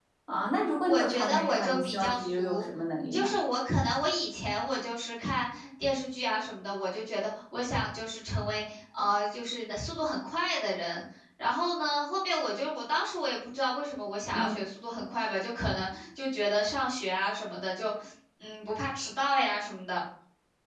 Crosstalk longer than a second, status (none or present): present